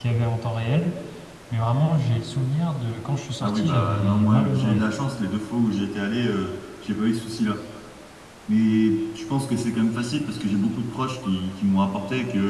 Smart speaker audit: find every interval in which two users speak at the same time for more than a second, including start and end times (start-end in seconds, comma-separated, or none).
3.4-4.9